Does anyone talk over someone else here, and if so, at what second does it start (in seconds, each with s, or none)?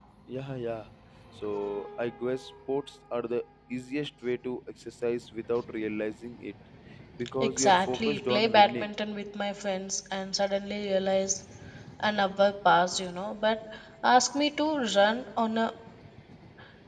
7.4 s